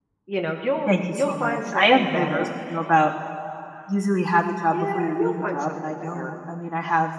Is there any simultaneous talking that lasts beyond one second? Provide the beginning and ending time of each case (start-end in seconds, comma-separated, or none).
0.9-2.5, 4.7-6.3